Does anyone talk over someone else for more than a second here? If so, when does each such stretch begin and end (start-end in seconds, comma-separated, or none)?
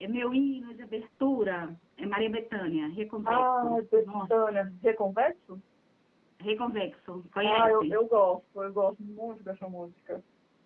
3.4-4.6